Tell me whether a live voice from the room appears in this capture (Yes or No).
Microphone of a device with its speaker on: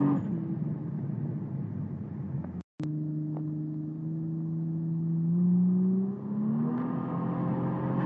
No